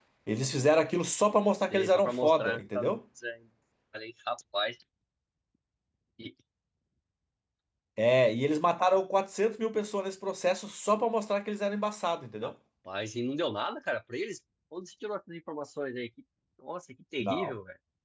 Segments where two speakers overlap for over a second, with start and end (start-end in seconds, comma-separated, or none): 1.7-3.0